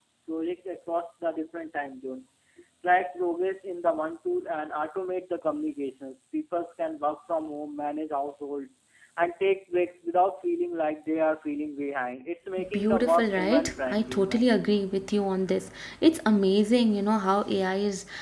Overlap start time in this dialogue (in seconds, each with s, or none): 12.6 s